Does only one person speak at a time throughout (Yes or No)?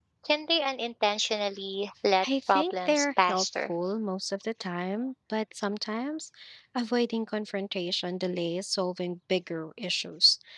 No